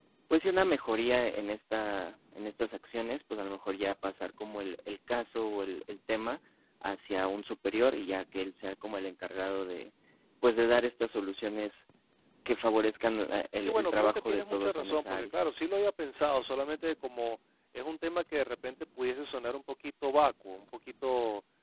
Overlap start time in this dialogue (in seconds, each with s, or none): 13.6 s